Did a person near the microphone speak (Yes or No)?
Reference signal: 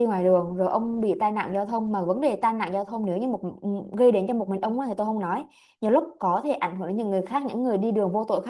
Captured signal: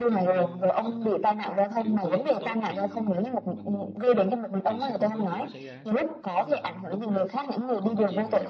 Yes